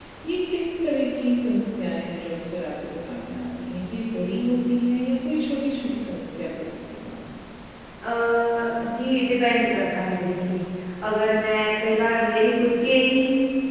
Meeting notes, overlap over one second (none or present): none